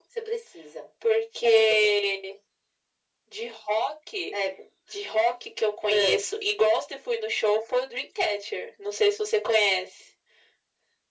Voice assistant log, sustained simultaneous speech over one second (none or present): none